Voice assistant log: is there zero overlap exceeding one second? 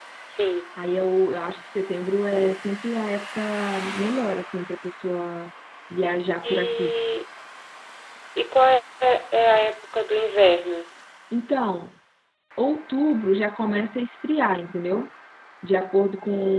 Yes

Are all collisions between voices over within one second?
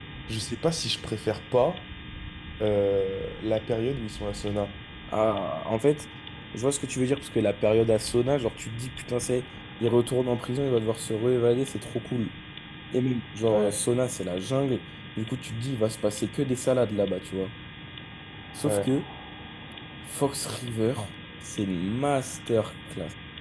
Yes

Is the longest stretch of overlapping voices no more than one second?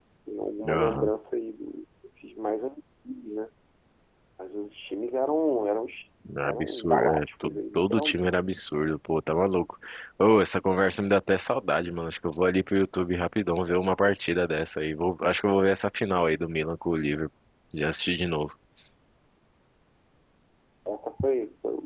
No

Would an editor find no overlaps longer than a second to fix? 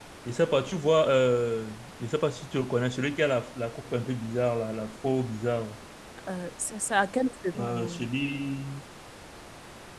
Yes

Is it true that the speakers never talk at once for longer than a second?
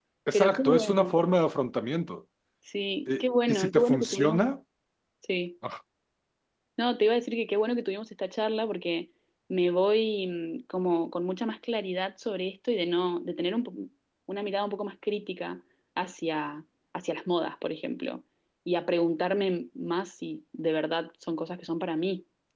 No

